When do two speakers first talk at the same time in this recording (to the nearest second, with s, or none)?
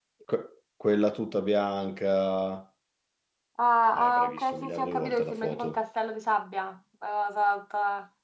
4 s